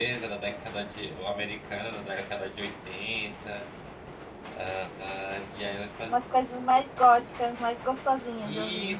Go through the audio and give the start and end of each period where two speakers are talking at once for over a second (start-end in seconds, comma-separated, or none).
none